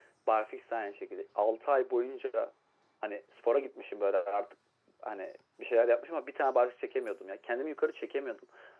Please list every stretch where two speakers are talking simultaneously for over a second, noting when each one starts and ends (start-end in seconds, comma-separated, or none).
none